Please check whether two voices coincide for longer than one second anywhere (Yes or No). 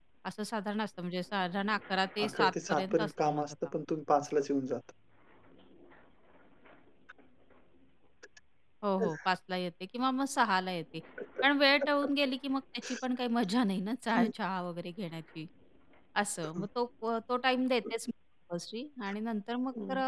Yes